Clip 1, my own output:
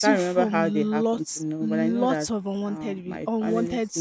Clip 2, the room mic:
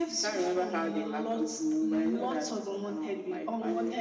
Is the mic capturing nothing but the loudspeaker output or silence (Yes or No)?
Yes